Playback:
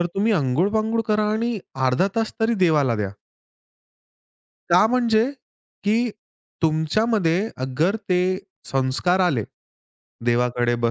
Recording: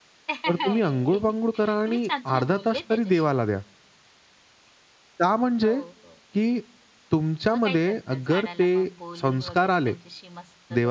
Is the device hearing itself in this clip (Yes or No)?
Yes